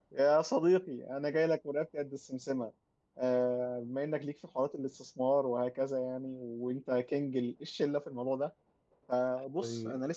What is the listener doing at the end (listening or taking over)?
listening